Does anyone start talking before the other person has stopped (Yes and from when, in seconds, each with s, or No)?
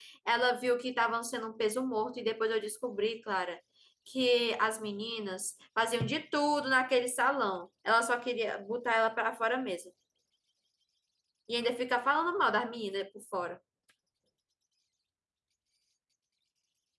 No